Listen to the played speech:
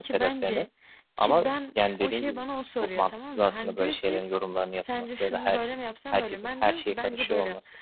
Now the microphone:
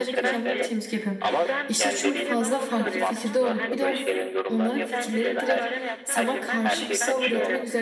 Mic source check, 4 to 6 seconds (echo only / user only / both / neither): both